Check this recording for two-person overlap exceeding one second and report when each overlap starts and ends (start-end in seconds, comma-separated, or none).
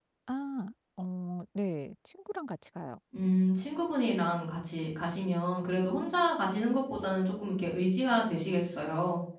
none